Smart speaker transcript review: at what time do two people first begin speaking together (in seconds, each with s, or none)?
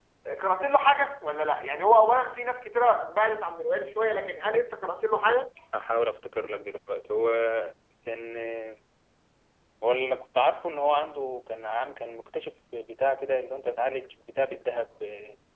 none